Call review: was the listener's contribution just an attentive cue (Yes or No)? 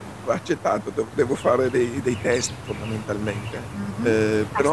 No